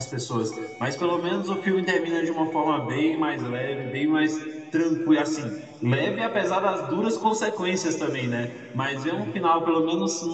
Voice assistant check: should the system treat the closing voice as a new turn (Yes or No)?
No